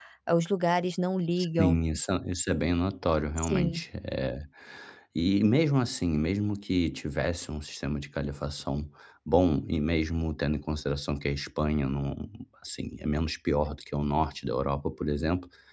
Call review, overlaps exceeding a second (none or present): none